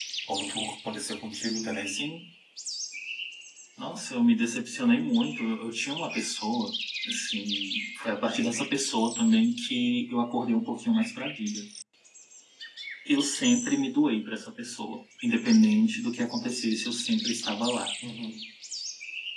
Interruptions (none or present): none